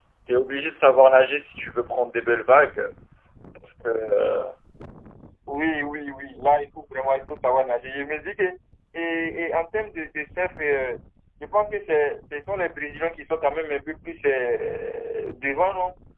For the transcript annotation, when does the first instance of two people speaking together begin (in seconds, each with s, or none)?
none